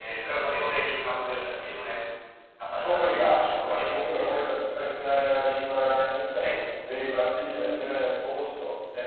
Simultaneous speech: Yes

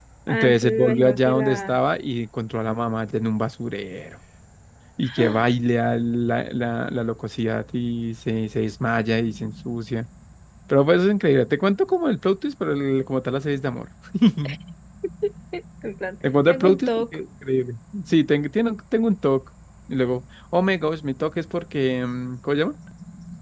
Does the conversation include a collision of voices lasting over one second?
Yes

